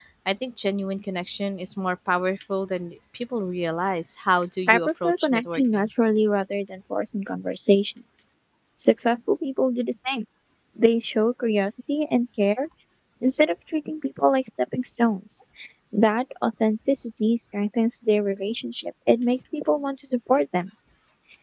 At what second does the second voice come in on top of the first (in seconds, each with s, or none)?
4.7 s